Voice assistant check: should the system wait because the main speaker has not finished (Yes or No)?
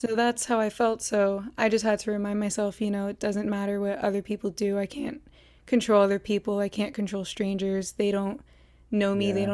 Yes